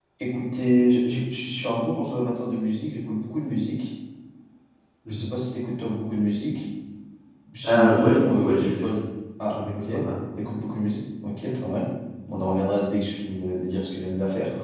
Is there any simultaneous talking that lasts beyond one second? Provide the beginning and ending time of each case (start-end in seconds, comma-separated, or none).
7.6-8.8